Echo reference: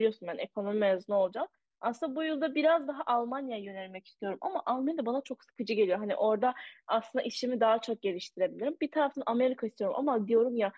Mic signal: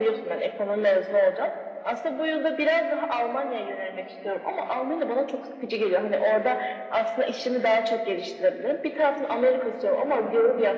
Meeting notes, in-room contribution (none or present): none